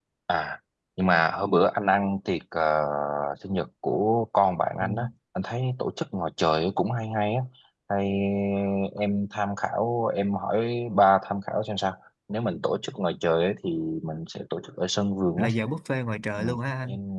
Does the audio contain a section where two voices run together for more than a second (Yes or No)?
No